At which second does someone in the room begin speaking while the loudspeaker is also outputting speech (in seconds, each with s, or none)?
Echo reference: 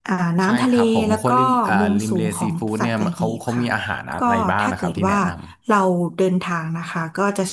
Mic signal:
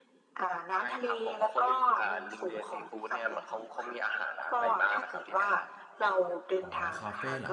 6.6 s